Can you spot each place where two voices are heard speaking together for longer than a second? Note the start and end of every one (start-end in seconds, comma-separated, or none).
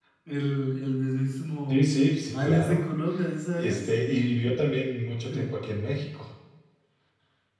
none